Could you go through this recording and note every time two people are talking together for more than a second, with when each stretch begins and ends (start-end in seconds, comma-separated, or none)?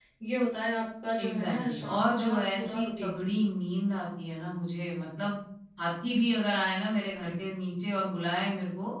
1.2-3.2